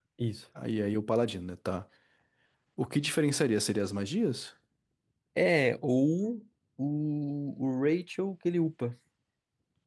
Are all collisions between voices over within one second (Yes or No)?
Yes